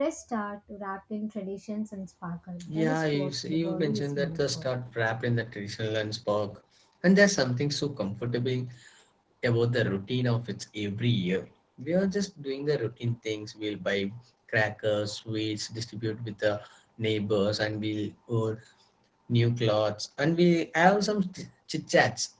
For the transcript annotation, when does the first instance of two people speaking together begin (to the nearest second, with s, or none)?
3 s